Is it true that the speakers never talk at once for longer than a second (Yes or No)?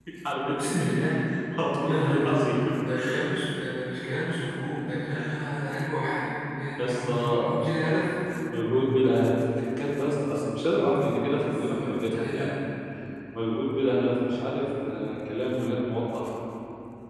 No